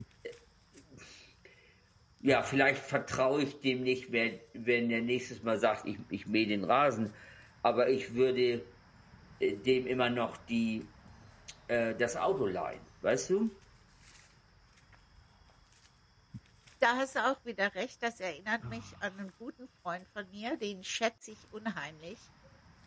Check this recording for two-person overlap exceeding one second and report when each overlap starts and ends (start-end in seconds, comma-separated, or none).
none